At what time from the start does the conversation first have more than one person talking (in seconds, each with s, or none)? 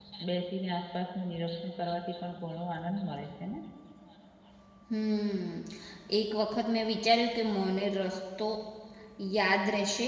none